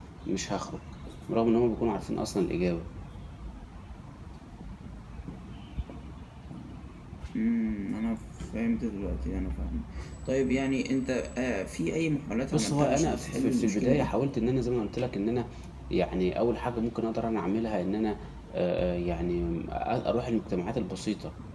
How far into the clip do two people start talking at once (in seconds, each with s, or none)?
12.5 s